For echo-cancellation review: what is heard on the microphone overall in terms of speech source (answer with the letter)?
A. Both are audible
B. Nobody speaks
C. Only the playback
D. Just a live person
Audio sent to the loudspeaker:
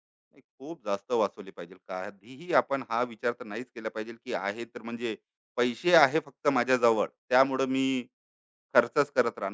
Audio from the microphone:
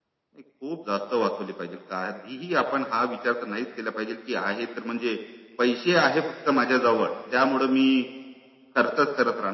C